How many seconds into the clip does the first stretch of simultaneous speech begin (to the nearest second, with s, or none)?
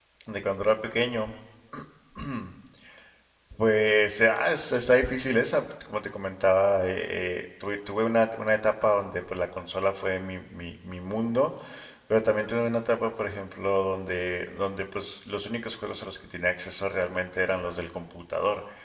none